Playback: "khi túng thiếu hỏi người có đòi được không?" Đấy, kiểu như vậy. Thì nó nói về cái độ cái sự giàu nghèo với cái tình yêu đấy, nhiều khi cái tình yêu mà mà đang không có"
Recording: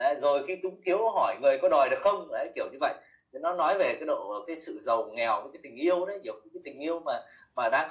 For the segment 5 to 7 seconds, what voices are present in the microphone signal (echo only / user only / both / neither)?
echo only